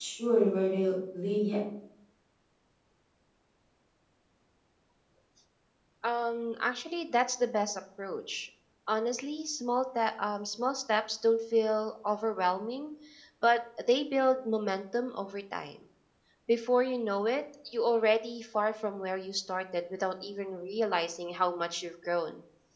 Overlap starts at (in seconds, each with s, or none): none